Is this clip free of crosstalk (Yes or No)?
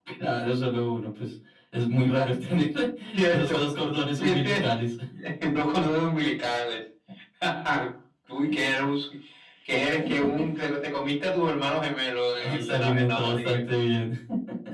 No